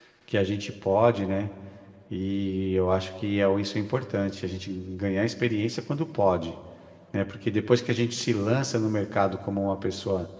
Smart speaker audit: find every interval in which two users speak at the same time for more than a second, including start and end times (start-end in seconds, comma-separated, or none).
none